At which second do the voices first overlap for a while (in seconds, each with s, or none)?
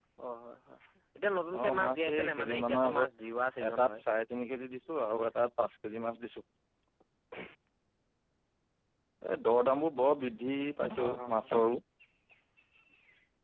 1.6 s